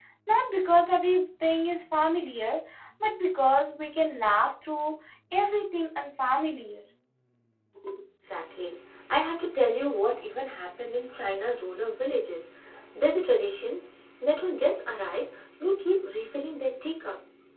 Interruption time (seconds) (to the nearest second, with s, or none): none